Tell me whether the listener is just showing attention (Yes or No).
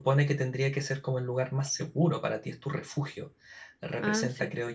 Yes